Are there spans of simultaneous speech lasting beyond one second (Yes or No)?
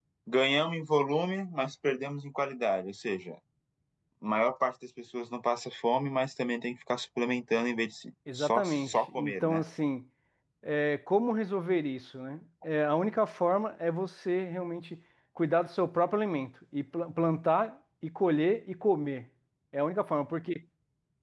Yes